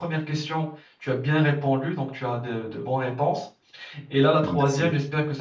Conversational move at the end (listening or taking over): listening